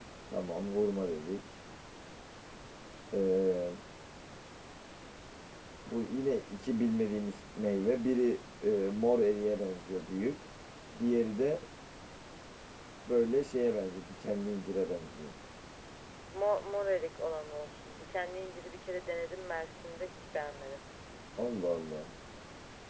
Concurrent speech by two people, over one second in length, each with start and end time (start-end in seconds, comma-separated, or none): none